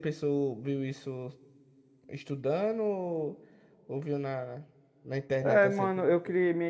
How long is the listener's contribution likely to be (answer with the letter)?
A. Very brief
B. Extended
B